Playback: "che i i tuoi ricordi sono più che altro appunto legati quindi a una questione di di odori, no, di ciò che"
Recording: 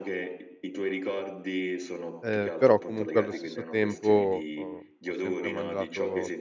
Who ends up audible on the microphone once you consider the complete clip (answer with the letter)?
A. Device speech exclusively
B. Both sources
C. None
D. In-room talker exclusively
B